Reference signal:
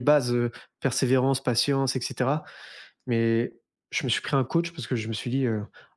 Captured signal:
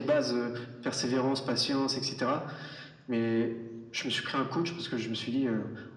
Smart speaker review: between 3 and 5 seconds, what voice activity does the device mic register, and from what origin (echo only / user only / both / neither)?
echo only